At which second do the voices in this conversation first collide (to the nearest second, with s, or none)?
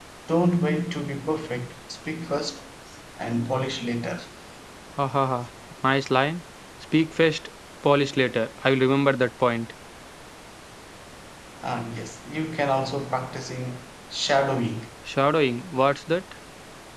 none